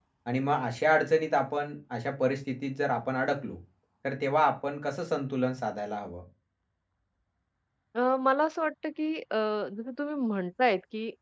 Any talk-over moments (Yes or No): No